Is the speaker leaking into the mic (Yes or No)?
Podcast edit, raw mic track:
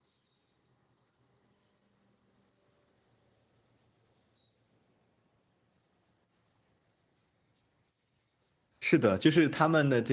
No